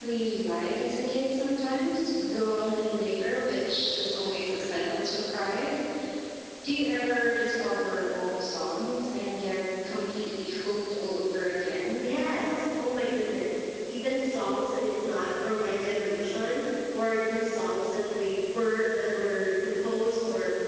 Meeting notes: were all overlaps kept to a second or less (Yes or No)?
Yes